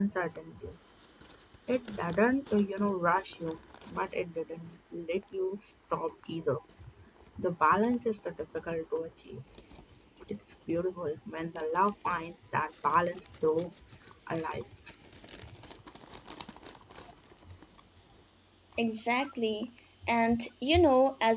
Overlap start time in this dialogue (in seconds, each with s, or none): none